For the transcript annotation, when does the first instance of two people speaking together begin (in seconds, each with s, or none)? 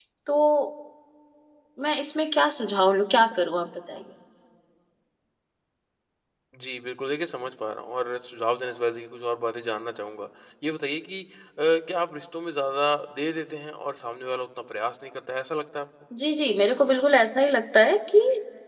none